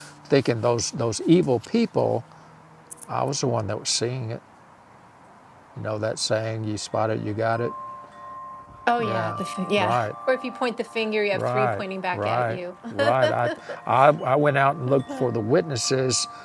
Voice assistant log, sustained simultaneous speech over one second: present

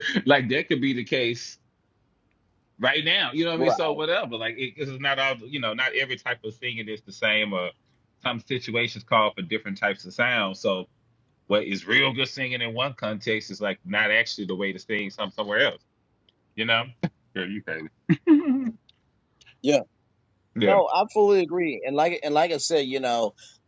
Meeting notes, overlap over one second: none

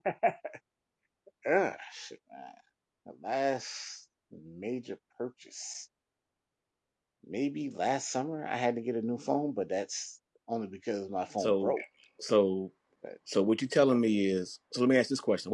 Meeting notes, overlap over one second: none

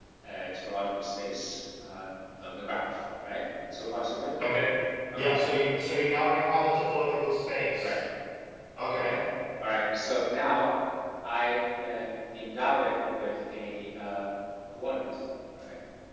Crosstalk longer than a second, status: none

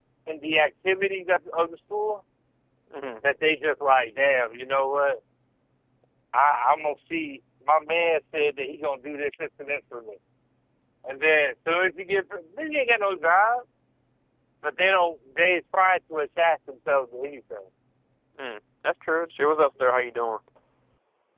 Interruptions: none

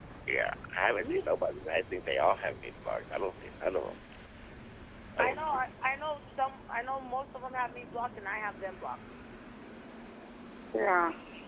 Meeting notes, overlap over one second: none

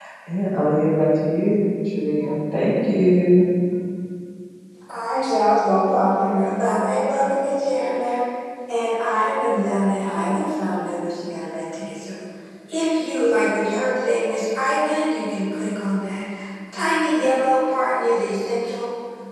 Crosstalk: none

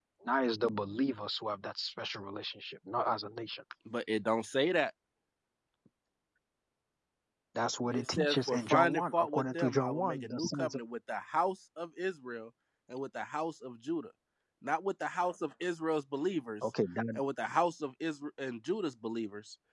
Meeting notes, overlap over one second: present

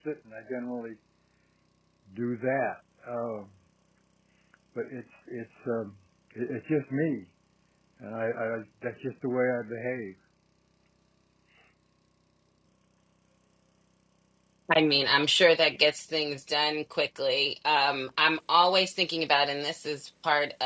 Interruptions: none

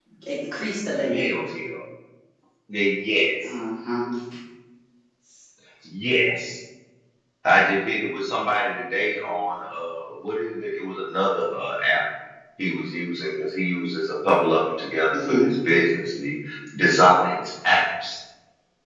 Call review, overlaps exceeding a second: none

